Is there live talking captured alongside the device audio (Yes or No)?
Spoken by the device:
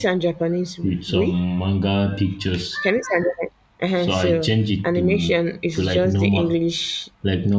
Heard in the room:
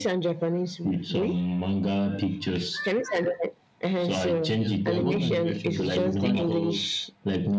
Yes